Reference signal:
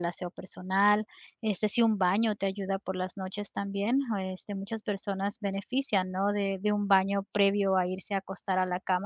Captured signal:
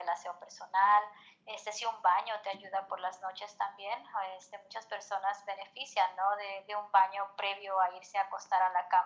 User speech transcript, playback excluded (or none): none